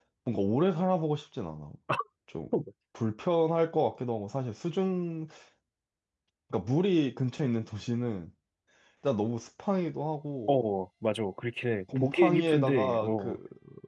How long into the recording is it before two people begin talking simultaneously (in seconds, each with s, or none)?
11.9 s